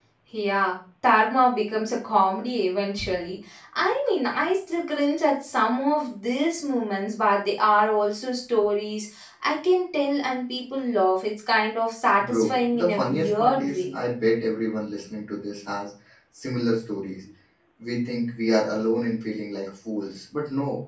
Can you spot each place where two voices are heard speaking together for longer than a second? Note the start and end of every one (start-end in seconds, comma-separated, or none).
12.2-13.8